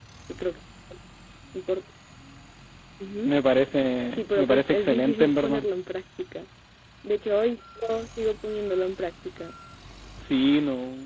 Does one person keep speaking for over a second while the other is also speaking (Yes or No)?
Yes